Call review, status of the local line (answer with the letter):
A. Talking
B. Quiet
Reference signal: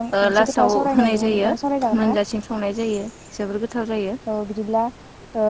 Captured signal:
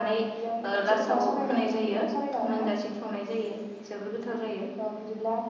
B